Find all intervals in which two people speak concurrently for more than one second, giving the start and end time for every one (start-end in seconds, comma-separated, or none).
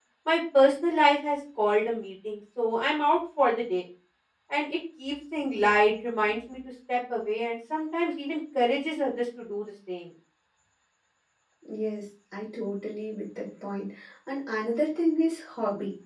none